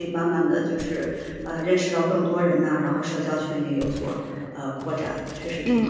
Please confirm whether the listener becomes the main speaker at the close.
Yes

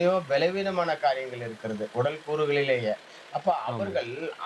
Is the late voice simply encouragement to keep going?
Yes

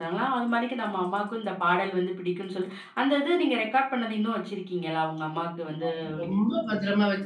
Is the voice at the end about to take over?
Yes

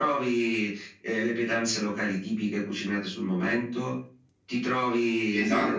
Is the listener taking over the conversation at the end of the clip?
Yes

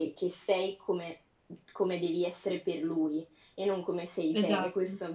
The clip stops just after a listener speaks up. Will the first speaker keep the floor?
Yes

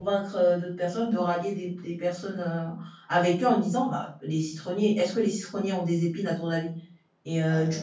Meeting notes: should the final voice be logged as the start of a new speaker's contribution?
No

